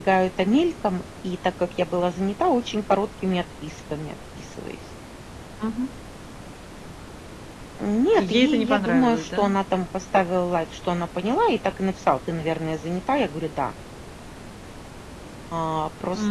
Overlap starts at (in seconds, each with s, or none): 8.2 s